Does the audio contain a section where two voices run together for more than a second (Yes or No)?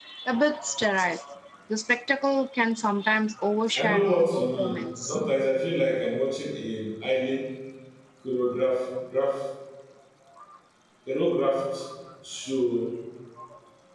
Yes